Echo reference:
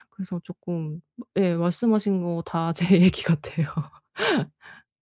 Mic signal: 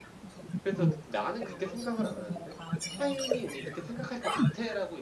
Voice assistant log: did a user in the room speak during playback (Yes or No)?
Yes